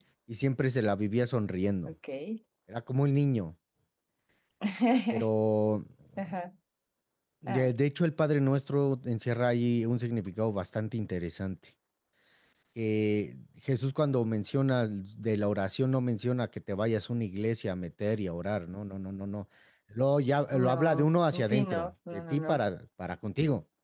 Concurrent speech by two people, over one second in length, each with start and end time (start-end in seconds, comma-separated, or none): 20.5-22.6